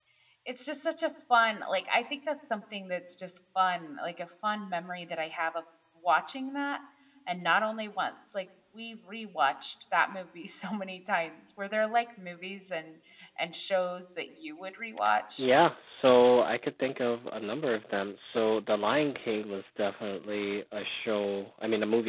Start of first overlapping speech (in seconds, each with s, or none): none